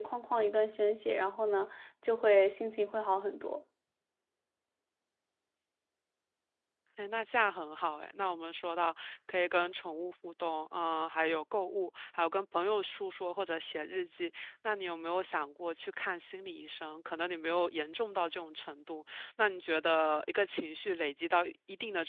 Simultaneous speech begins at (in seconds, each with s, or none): none